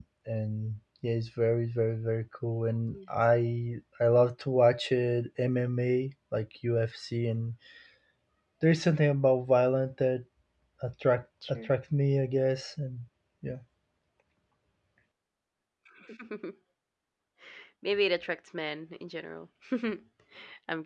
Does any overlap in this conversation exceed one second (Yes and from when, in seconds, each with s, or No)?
No